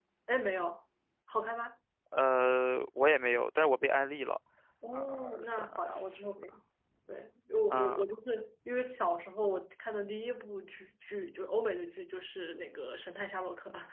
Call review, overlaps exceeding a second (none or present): present